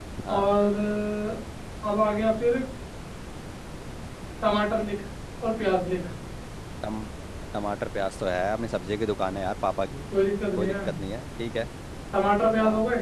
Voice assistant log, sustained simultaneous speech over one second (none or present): none